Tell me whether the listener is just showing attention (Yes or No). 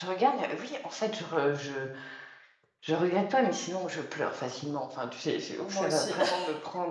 Yes